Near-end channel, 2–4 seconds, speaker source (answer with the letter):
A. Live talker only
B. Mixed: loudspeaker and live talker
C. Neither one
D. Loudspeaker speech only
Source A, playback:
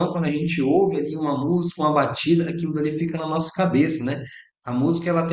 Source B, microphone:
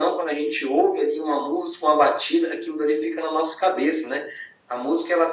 D